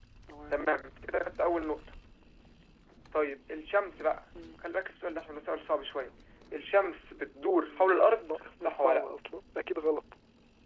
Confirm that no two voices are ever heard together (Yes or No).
No